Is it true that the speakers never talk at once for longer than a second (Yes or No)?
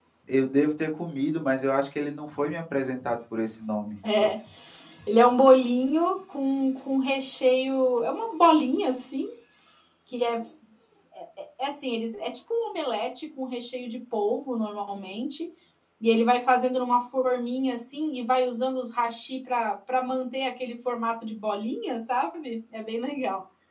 Yes